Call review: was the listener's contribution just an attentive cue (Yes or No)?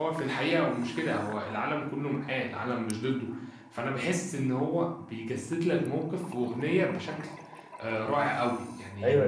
No